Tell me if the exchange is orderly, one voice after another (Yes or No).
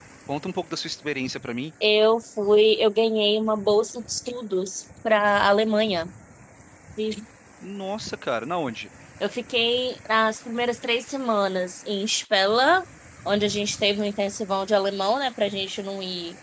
Yes